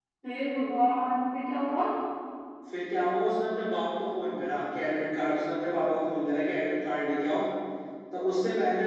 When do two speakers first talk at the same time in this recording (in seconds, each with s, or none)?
none